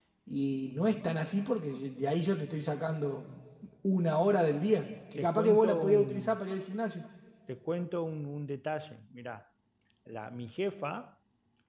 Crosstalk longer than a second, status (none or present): present